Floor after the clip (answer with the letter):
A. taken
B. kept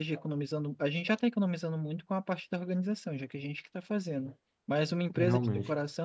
B